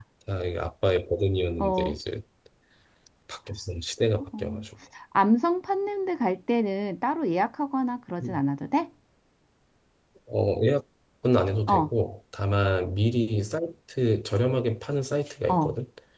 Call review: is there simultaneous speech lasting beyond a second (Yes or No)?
No